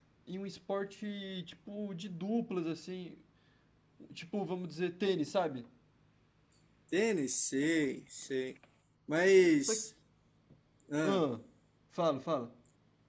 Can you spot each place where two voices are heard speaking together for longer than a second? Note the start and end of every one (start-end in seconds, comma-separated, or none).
none